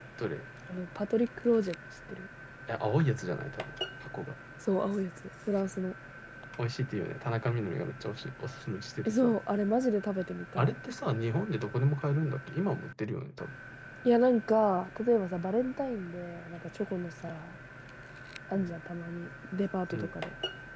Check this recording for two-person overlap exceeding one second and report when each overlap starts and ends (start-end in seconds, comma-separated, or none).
none